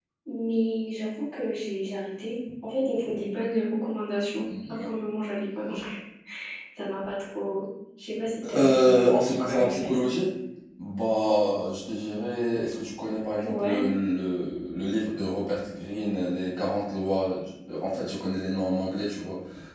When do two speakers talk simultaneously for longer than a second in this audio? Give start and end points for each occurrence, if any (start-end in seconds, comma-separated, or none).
8.5-10.1